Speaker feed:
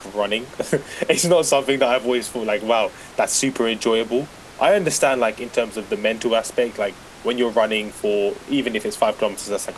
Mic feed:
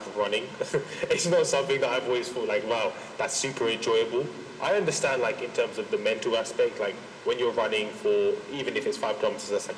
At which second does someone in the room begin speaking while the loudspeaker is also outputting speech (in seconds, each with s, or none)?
none